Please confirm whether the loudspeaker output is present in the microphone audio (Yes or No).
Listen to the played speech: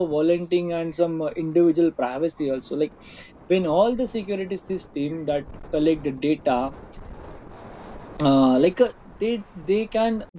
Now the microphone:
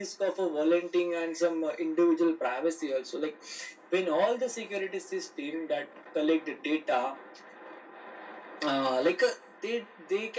Yes